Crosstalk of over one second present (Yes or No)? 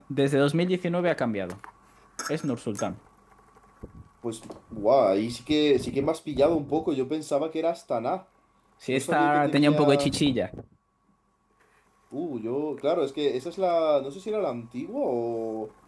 Yes